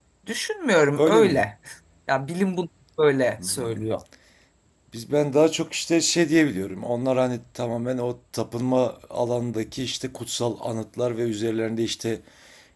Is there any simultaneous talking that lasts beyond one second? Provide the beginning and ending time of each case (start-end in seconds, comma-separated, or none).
none